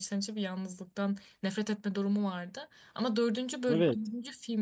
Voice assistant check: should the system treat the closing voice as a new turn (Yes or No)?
No